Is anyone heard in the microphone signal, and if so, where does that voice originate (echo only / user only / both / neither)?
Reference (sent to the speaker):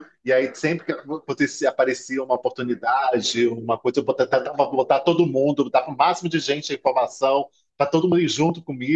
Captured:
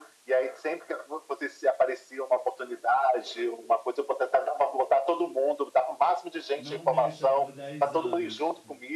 both